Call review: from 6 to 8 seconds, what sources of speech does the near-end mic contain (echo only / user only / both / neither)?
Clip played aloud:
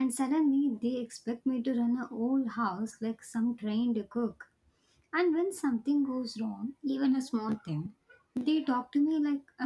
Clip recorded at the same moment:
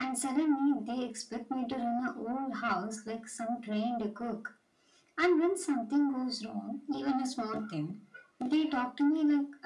echo only